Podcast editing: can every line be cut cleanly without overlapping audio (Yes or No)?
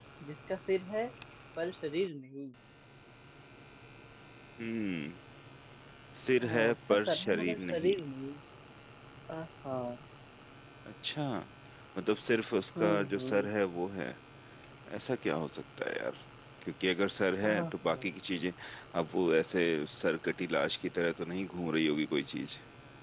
No